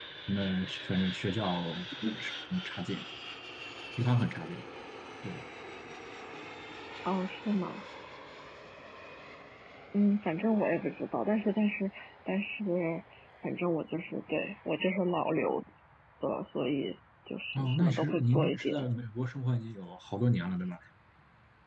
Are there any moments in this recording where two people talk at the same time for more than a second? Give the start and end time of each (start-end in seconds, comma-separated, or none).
17.6-18.8